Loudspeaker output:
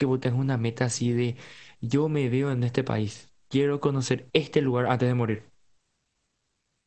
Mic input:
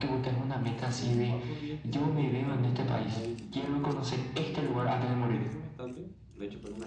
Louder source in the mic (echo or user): echo